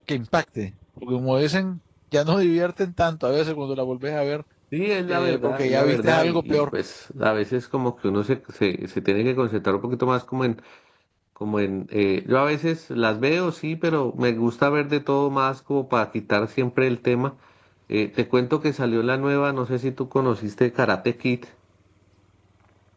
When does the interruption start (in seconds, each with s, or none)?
5.1 s